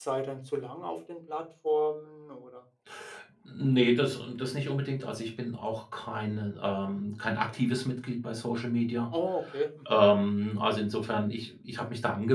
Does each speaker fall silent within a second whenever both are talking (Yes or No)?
Yes